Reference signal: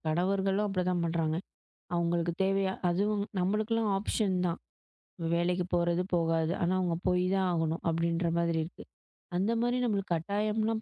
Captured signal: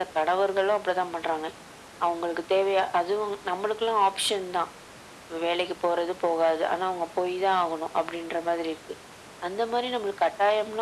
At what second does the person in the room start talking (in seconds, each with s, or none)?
none